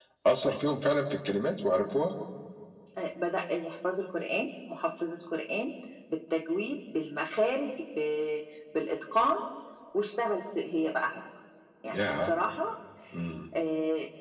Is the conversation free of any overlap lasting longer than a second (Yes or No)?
Yes